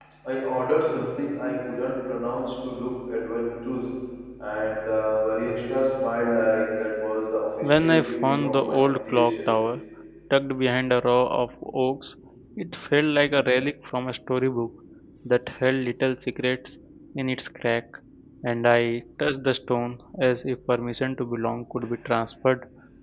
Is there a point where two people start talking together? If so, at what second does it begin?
7.6 s

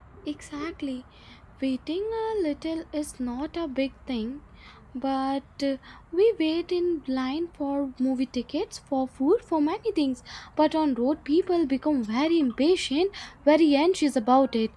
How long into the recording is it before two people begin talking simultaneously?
none

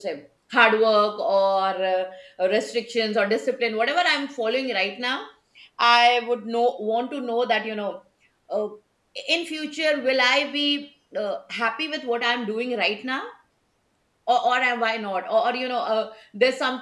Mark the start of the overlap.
none

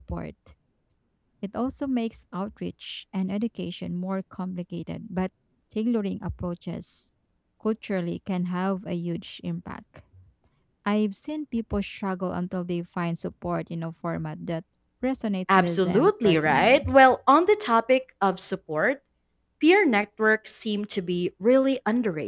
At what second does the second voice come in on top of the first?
15.5 s

